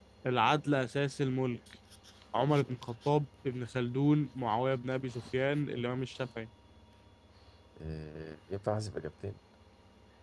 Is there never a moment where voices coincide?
Yes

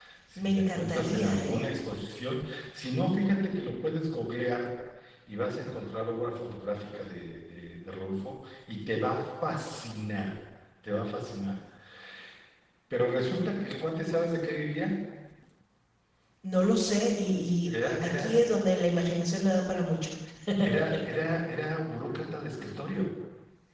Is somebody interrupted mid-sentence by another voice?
Yes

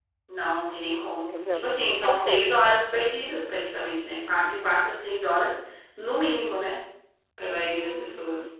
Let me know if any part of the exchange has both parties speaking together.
Yes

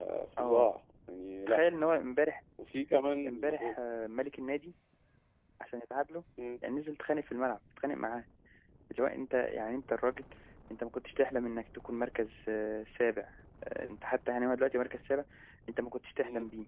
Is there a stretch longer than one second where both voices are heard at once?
No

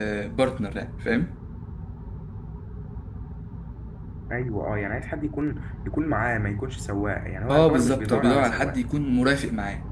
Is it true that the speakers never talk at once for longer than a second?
No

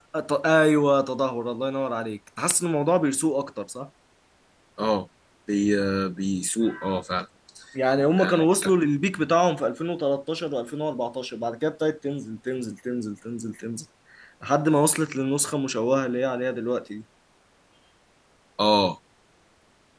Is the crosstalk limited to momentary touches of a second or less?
Yes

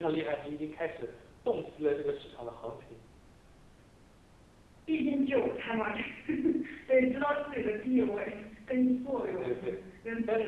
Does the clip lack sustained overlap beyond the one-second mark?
Yes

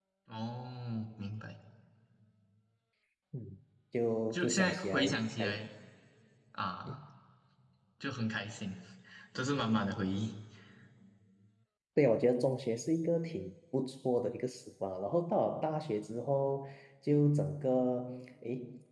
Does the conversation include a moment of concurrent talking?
Yes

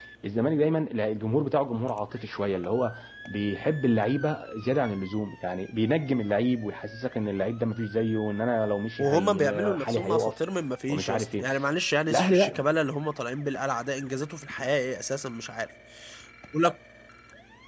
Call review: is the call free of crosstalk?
No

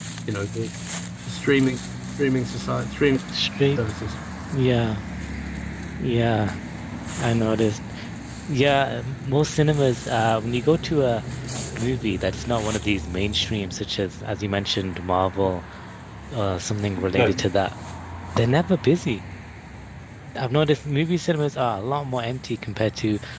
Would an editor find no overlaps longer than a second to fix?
Yes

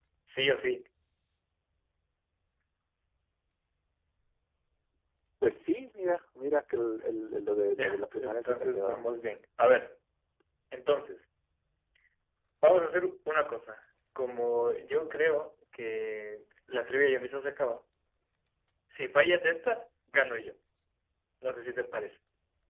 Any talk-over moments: Yes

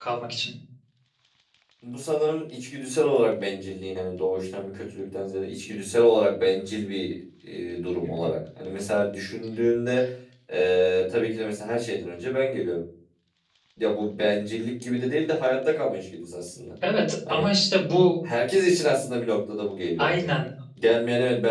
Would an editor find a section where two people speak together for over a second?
No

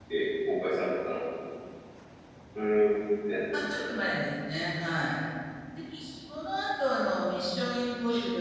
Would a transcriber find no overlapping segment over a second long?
Yes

